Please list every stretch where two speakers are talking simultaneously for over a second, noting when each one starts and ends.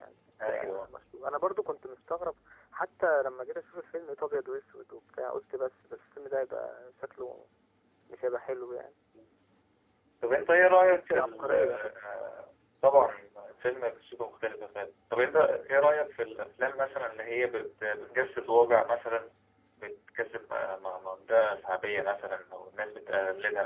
10.6-11.8

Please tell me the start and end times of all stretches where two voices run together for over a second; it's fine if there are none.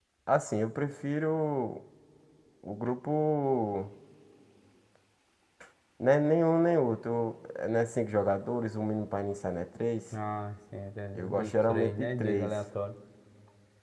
11.2-12.5

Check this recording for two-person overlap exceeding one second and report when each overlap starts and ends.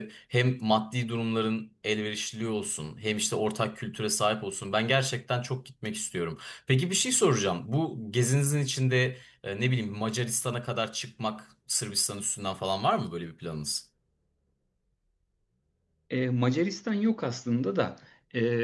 none

